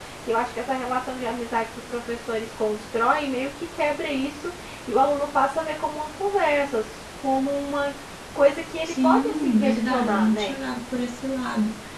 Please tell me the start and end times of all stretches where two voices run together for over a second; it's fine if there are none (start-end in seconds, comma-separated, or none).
8.9-10.6